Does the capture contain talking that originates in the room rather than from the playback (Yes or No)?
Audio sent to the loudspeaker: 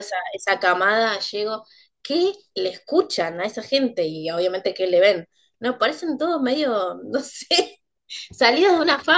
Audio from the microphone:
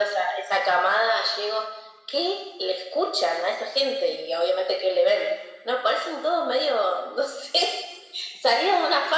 No